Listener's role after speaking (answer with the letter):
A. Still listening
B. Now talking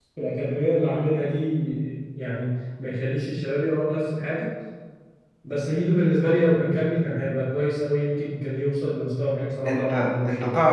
B